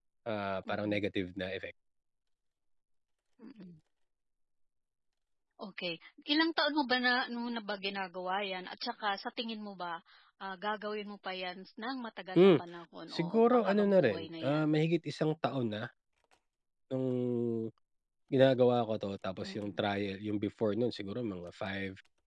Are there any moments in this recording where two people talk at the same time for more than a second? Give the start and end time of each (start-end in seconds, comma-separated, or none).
13.1-14.8